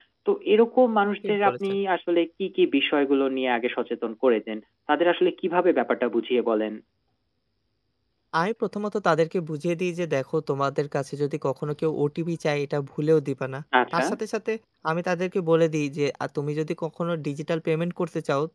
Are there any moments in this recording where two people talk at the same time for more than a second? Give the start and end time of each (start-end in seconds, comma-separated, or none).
none